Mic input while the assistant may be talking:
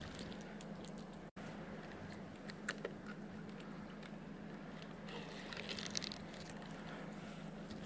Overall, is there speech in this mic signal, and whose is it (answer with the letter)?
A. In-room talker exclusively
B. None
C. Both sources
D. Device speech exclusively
B